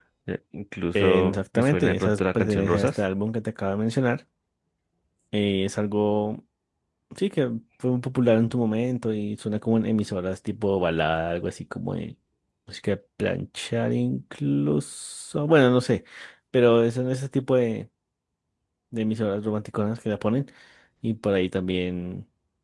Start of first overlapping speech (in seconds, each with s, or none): 0.9 s